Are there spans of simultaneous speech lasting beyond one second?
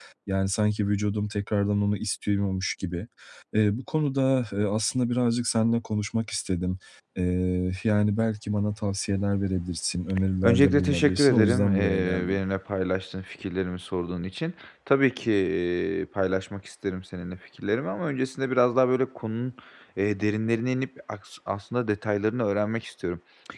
Yes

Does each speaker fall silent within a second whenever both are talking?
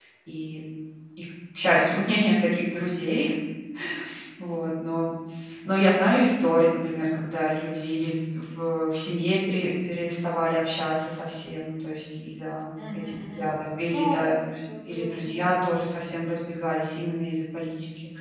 No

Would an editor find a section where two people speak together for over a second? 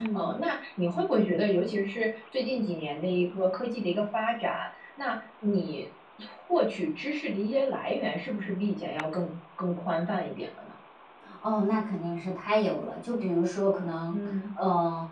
No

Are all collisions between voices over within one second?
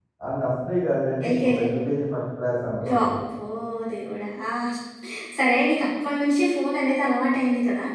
Yes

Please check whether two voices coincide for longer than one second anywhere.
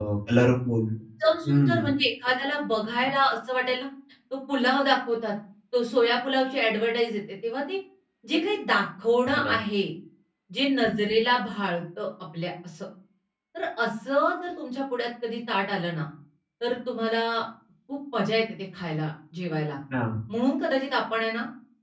No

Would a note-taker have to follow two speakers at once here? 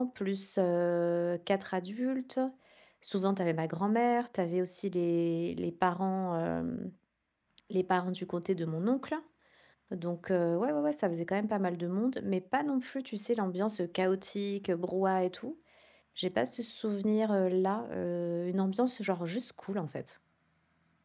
No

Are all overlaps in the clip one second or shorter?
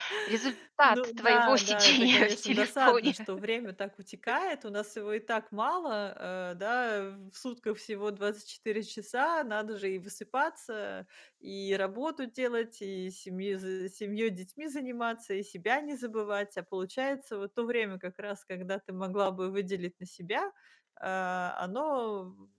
No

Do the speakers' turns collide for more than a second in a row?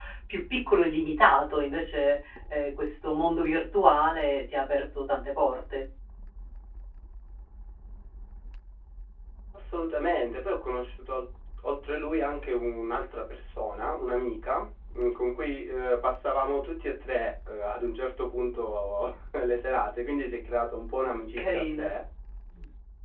No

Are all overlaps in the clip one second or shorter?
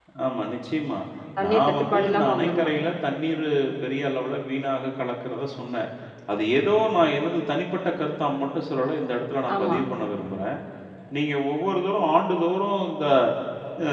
No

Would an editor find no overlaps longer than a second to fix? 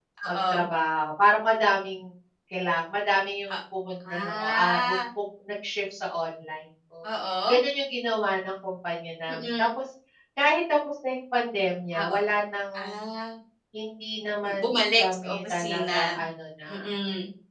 No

